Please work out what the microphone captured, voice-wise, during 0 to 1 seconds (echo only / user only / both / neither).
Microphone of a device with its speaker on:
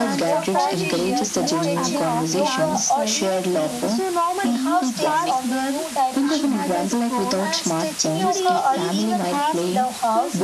both